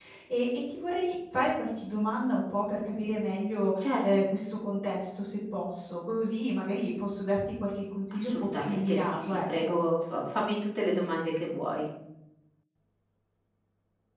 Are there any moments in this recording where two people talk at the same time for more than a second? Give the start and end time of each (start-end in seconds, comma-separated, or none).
8.2-9.8